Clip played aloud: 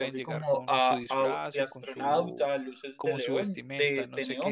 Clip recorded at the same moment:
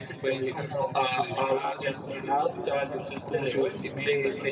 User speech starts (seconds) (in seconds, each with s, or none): none